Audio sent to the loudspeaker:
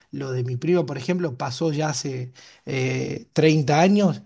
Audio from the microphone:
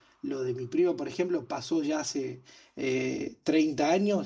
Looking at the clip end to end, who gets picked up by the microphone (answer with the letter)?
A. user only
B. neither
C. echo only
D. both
C